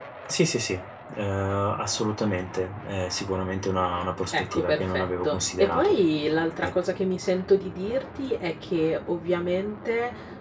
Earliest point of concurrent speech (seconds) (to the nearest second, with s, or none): 4 s